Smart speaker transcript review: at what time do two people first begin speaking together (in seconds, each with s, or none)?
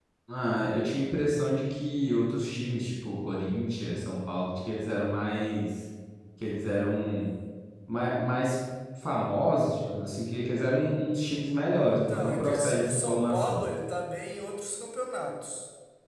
11.9 s